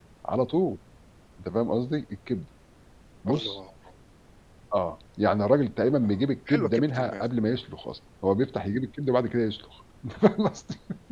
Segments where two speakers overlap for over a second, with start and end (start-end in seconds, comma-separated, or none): 6.0-7.2